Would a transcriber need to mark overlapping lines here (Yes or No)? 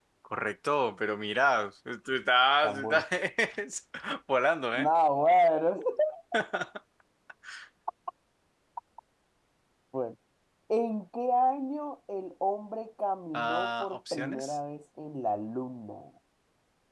Yes